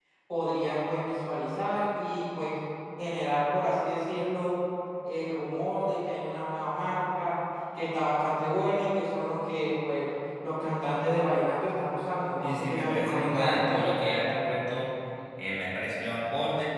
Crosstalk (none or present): present